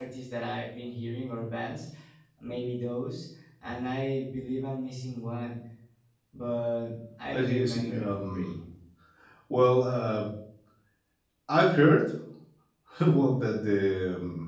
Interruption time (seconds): 7 s

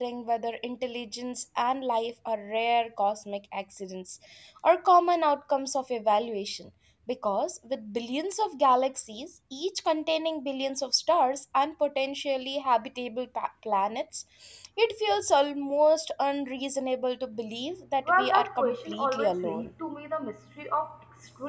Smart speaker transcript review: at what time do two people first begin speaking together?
18 s

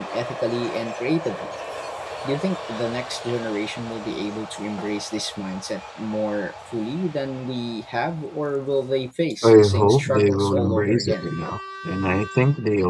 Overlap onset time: 9 s

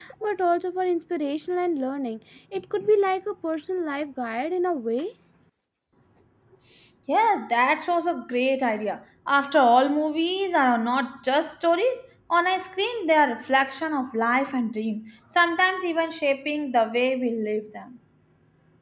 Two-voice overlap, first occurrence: none

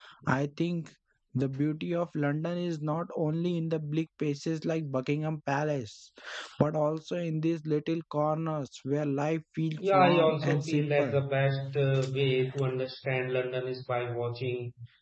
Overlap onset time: 10 s

